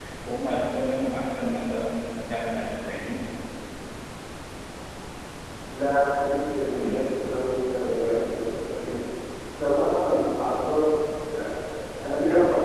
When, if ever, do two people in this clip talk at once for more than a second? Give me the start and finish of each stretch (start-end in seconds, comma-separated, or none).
none